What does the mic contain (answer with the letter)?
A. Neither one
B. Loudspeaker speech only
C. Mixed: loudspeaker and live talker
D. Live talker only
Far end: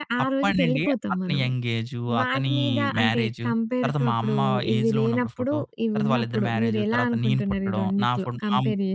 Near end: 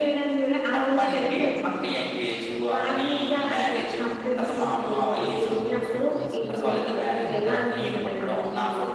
C